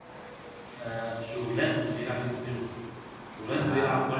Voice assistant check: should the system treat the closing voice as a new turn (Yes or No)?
Yes